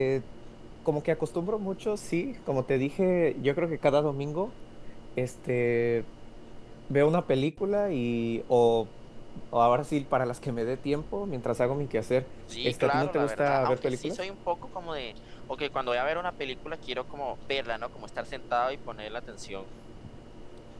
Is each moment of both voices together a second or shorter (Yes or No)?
No